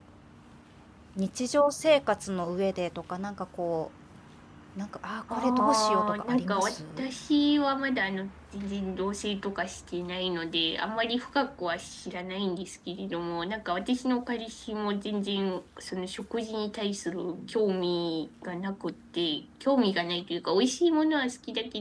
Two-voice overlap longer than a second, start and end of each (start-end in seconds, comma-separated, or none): 5.3-7.0